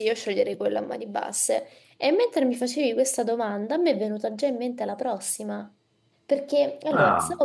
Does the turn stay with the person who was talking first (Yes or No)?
Yes